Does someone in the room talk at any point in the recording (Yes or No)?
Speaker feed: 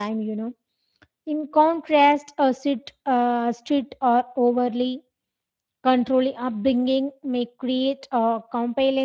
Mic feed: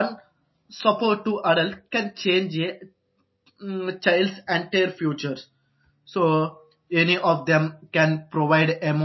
Yes